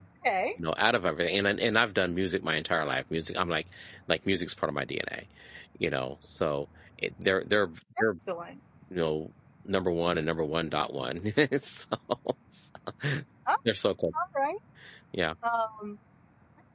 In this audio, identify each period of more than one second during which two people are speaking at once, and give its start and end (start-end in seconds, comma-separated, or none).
none